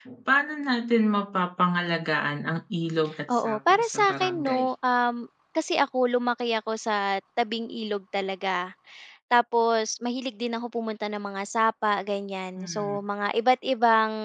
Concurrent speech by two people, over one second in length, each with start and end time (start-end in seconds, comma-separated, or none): 3.3-4.7